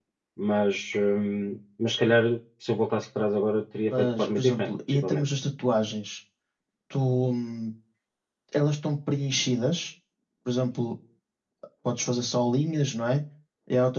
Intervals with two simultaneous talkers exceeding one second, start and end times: 3.9-5.2

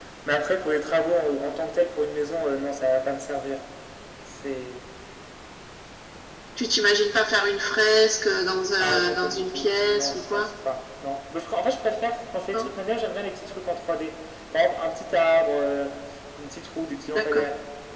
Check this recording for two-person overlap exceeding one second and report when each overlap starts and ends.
8.8-10.5

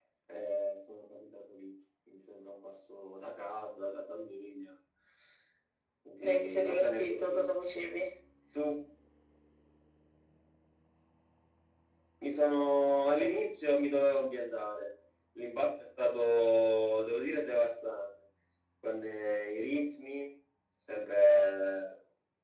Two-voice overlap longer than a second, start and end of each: 6.2-7.5

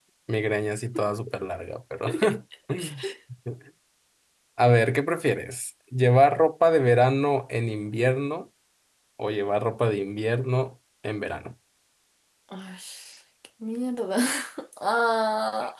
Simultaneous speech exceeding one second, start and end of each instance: none

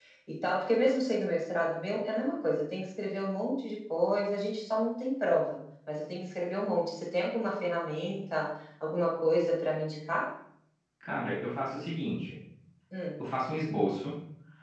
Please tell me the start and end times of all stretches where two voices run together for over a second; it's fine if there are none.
none

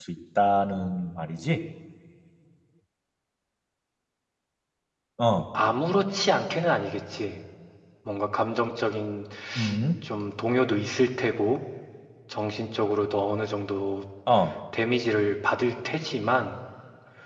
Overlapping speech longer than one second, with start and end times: none

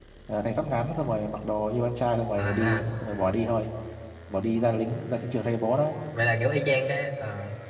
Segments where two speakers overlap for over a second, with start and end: none

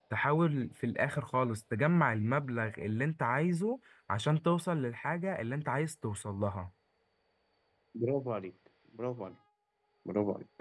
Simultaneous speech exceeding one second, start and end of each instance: none

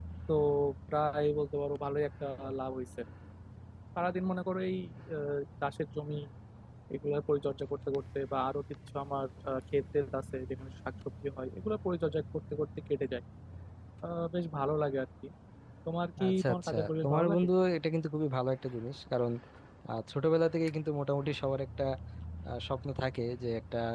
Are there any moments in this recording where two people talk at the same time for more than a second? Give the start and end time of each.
16.3-17.5

